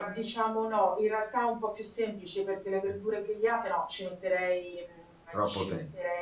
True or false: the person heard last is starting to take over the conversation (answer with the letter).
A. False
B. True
A